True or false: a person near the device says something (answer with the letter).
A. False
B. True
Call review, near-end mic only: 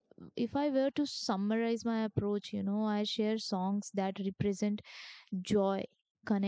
B